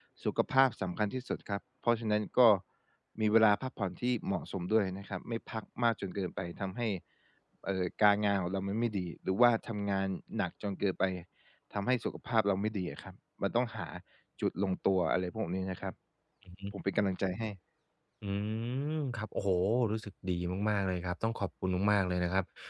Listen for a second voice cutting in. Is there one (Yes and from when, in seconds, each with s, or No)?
No